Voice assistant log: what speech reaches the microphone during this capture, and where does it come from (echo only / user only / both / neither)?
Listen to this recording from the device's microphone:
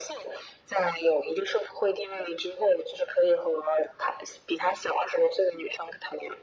echo only